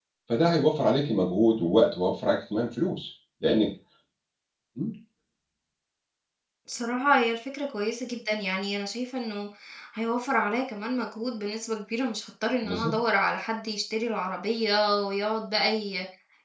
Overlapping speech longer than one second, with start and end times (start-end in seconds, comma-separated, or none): none